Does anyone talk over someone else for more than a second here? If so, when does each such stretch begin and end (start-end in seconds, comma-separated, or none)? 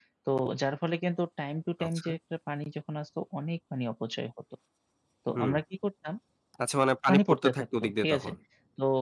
7.1-8.3